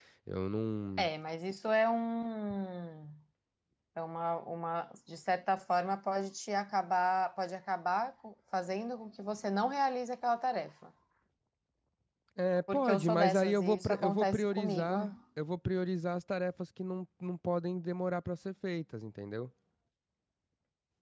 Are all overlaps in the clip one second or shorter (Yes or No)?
No